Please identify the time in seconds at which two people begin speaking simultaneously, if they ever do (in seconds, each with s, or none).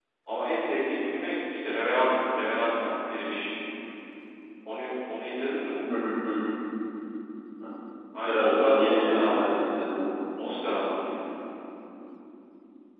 8.2 s